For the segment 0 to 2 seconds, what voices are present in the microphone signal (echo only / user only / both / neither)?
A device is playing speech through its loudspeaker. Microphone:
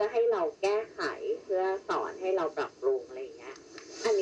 echo only